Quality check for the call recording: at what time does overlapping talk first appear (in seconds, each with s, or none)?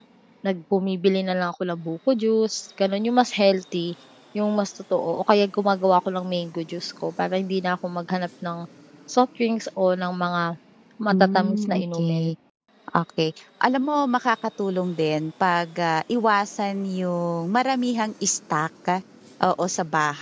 11.1 s